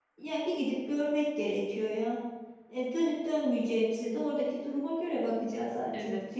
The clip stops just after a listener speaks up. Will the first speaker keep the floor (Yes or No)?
No